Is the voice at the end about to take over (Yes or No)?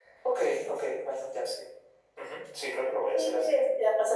Yes